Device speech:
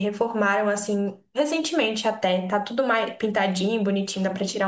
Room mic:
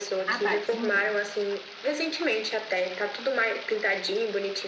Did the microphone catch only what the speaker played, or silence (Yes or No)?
No